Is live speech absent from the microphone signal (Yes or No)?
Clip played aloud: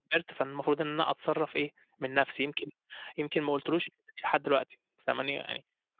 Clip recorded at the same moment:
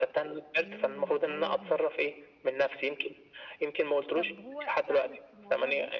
No